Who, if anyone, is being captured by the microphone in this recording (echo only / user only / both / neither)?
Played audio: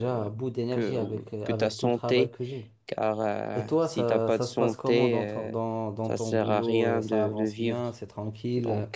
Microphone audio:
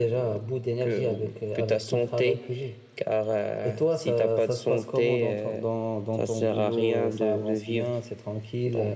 echo only